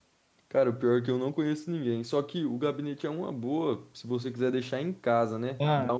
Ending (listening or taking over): listening